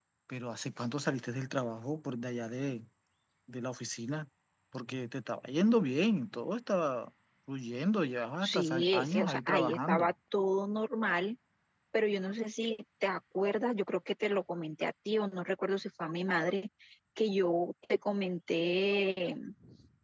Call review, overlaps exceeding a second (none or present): present